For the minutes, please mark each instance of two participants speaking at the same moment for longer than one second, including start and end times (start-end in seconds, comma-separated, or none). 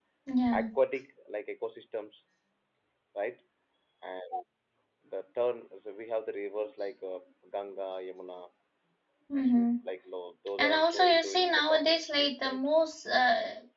10.6-12.6